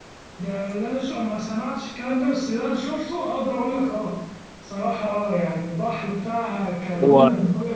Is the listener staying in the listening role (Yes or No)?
Yes